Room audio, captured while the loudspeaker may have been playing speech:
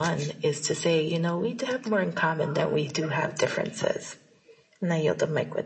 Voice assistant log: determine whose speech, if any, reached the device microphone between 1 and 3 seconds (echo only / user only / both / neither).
echo only